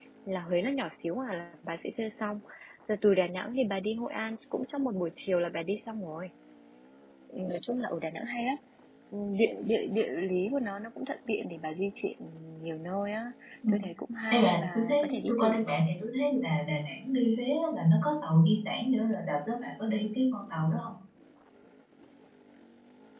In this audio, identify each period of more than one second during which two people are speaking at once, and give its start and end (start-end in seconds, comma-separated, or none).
14.3-15.8